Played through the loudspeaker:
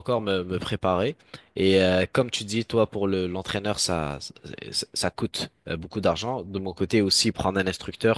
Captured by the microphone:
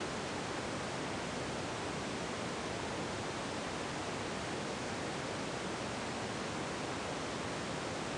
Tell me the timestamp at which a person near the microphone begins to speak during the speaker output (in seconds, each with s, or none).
none